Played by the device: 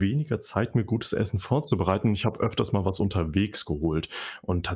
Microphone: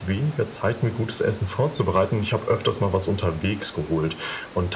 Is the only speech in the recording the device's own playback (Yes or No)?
Yes